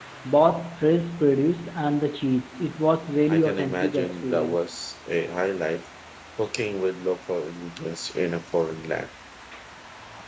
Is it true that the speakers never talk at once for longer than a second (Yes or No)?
No